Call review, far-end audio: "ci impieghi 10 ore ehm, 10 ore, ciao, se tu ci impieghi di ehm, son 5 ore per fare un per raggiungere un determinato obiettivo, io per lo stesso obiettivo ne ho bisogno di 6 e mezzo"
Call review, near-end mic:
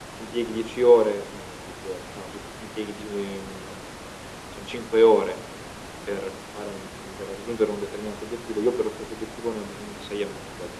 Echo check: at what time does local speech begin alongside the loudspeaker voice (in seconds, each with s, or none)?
none